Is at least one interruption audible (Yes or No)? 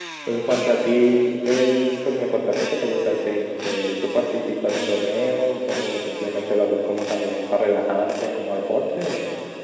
No